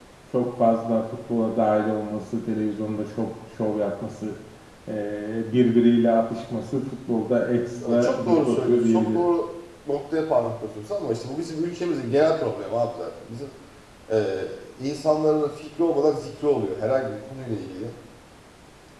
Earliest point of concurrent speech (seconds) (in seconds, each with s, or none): 7.8 s